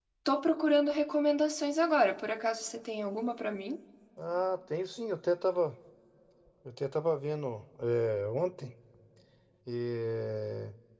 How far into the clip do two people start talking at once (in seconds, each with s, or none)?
none